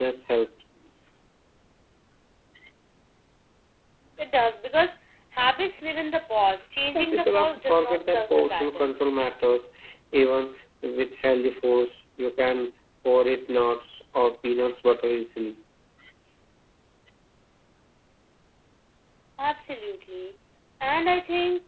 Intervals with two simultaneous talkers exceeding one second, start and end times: 7.0-8.9

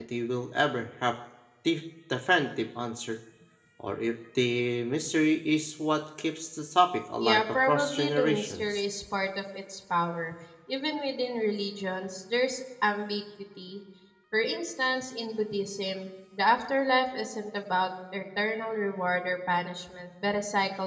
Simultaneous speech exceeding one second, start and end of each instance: 7.2-8.8

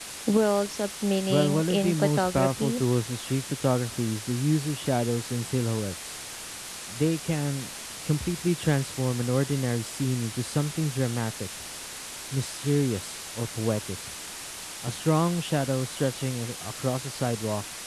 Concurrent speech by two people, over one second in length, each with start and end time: 1.3-2.8

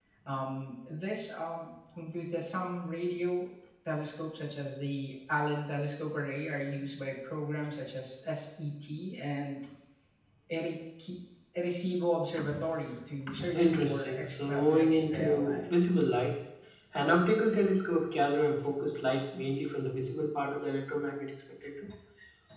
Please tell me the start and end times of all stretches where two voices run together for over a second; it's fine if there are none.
13.5-15.6

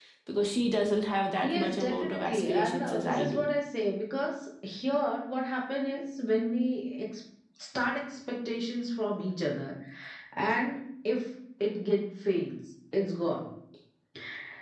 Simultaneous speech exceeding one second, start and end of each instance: 1.4-3.4

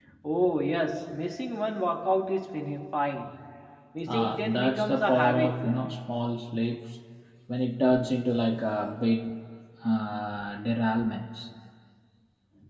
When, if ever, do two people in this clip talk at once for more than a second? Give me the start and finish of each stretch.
4.0-5.7

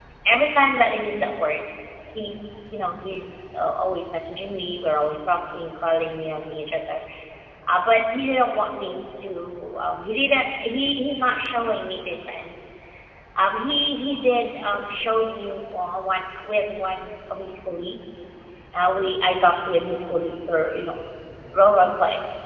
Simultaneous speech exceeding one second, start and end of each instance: none

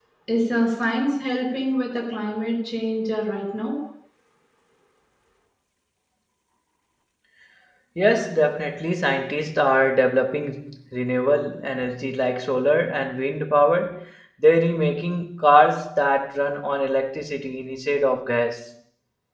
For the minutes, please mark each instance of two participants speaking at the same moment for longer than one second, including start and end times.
none

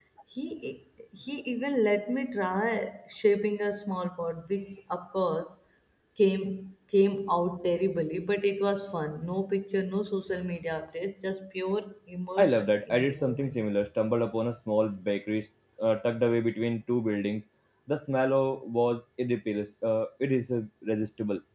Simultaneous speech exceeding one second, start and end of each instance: 12.4-13.6

